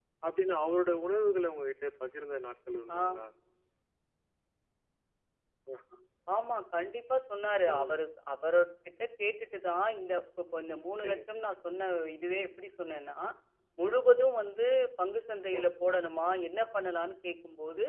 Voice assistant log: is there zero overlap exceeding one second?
Yes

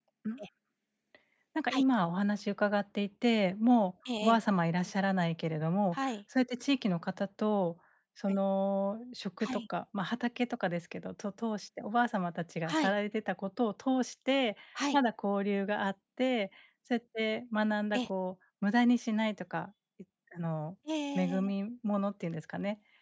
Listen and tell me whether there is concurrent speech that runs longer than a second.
No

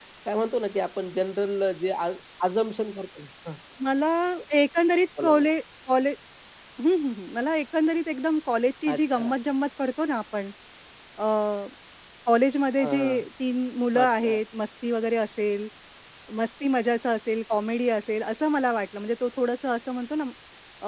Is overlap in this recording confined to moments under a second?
Yes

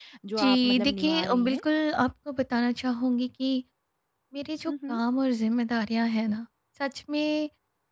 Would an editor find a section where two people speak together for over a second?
Yes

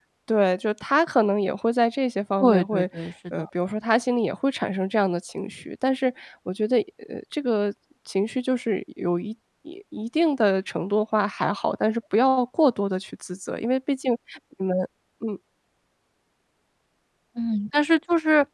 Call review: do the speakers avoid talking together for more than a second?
Yes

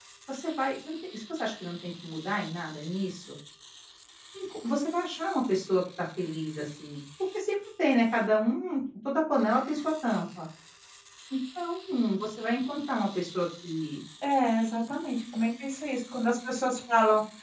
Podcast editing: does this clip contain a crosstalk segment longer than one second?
No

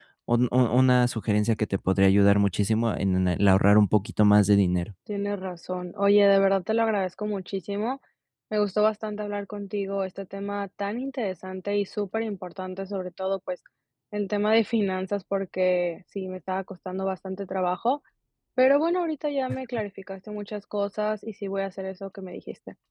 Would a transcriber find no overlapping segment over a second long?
Yes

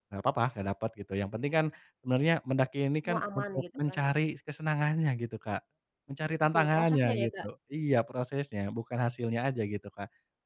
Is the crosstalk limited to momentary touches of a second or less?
No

